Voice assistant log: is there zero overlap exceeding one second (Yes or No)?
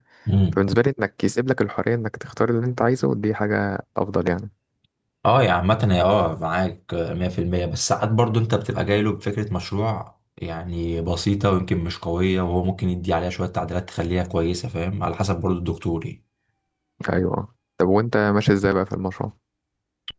Yes